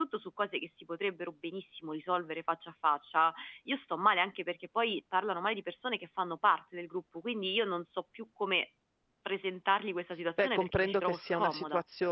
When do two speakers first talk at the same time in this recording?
10.4 s

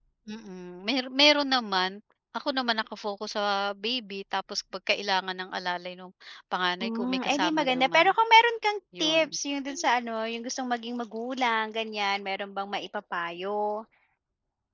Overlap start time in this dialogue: 6.8 s

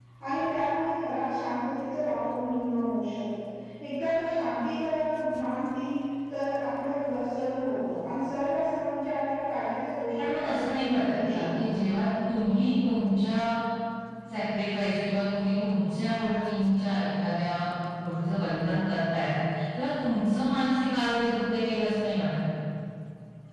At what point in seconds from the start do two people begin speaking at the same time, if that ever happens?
10.2 s

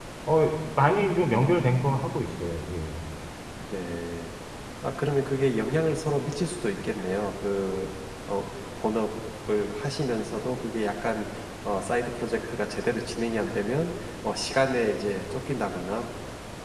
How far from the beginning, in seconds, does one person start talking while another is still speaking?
none

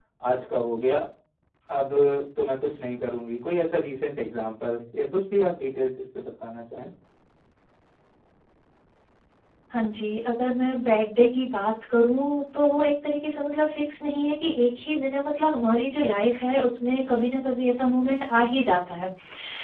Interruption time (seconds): none

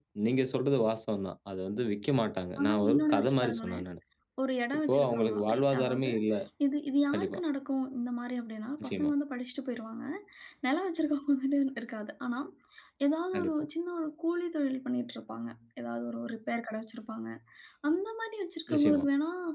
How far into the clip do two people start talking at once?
2.6 s

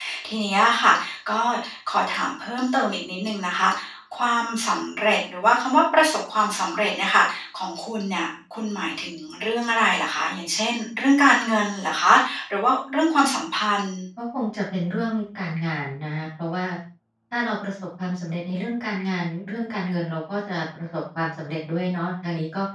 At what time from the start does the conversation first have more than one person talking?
none

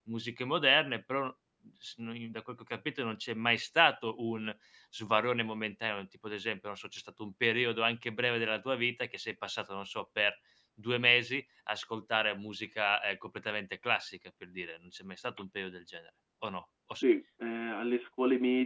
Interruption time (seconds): none

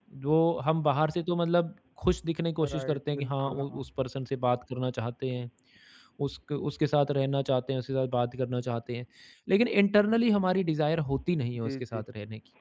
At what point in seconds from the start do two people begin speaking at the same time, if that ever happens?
2.6 s

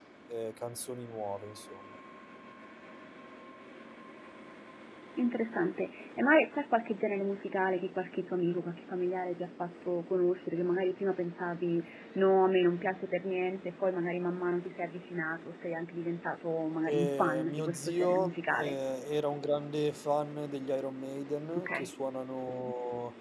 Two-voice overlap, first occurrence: 16.9 s

